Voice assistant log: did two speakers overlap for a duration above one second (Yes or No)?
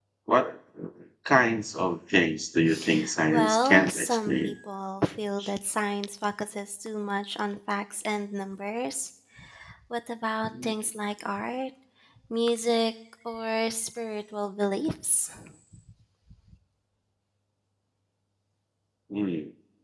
Yes